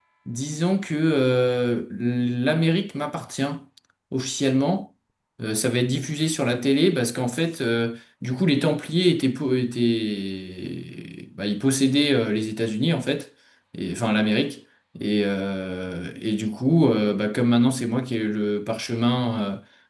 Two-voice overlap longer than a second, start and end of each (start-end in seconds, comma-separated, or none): none